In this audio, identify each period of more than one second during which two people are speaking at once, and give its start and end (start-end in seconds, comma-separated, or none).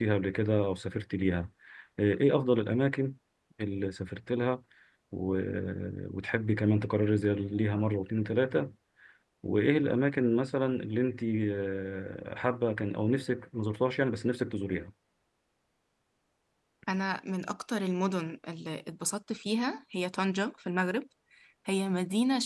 none